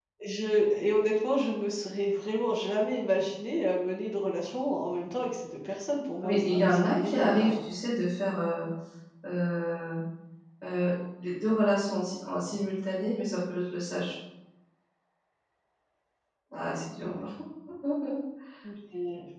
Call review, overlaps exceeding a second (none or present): present